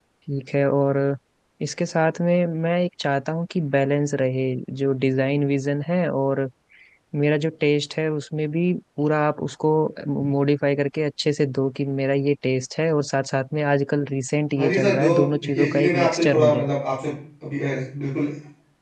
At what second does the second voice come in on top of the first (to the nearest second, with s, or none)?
15 s